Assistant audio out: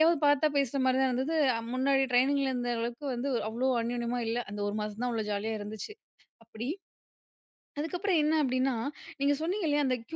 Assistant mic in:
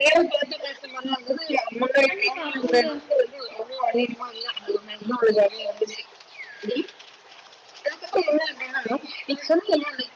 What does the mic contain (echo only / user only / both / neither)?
both